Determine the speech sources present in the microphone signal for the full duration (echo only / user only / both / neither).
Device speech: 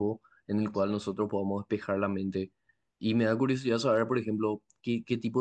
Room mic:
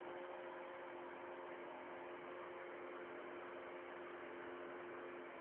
neither